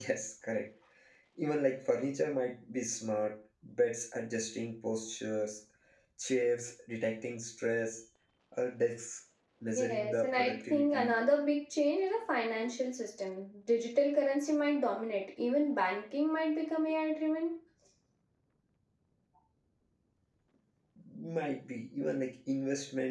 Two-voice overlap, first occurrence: 9.8 s

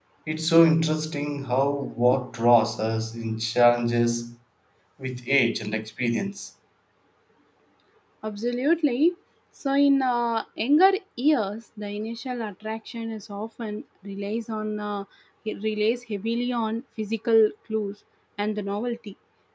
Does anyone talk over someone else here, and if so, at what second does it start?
none

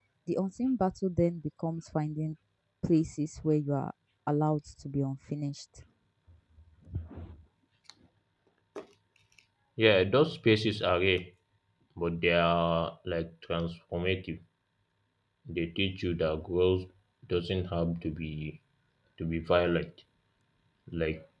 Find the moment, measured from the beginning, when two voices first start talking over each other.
none

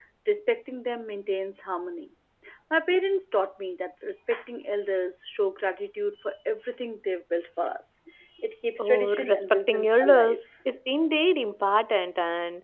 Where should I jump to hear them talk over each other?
8.8 s

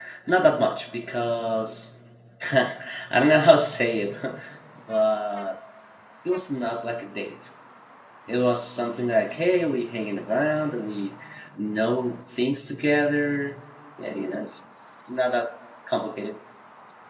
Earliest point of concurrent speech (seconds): none

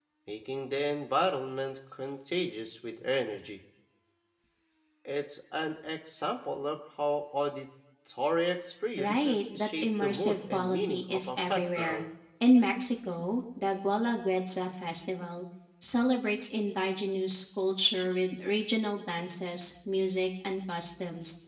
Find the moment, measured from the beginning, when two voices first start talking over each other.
9.0 s

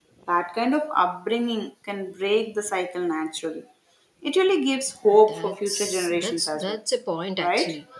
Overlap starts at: 5.3 s

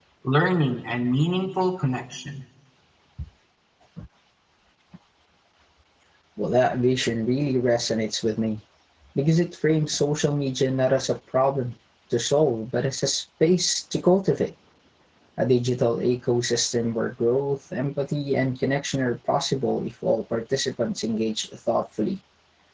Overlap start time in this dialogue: none

